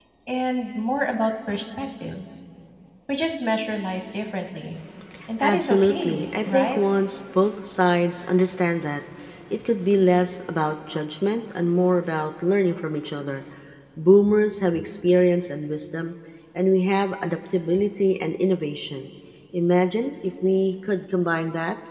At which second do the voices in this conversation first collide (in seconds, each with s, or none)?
5.4 s